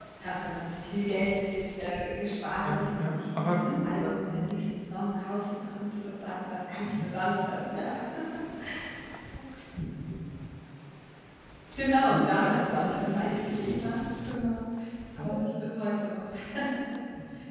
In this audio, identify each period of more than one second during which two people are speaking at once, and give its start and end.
2.6-4.5, 12.0-13.9

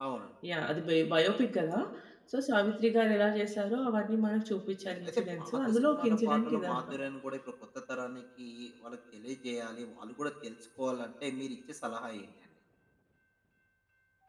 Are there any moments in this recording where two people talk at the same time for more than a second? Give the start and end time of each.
4.9-7.0

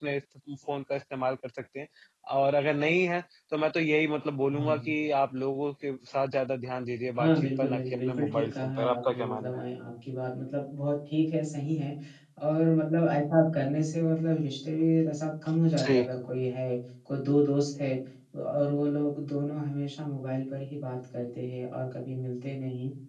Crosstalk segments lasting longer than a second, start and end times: 7.2-9.6

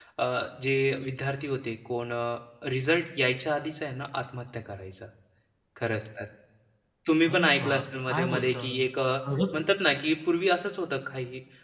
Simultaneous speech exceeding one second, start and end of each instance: 7.3-9.1

